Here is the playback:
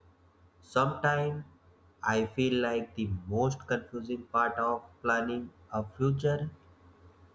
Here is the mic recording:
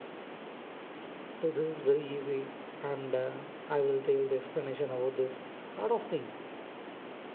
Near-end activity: present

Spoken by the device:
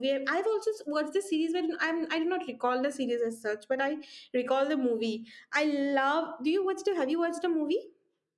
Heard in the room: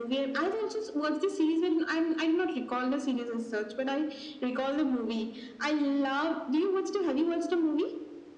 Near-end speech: none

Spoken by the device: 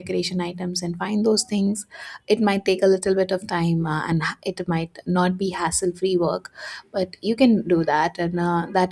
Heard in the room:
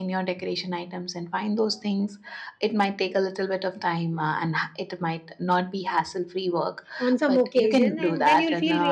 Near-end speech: present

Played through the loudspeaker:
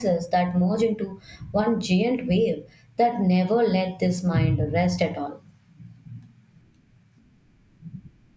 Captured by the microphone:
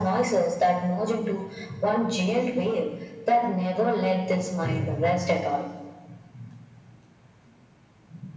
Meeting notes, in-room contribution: none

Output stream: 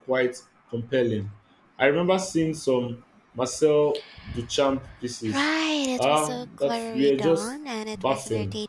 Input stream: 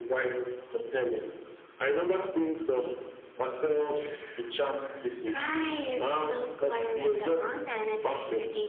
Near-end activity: none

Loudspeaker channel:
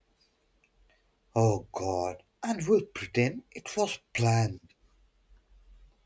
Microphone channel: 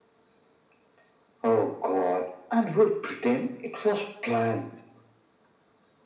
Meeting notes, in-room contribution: none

